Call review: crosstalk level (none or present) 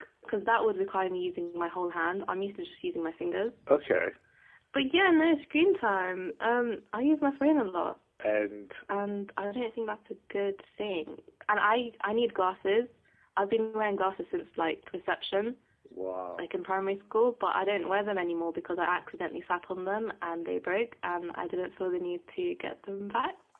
none